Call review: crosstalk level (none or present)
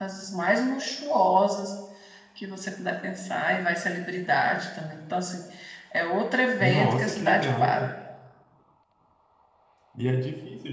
present